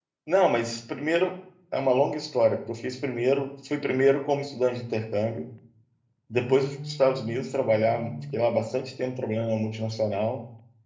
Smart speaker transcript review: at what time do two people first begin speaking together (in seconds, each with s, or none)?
6.3 s